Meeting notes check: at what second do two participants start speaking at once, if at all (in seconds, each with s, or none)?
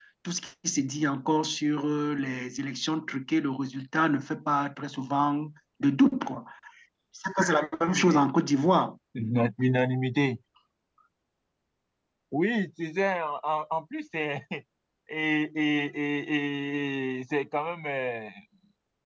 none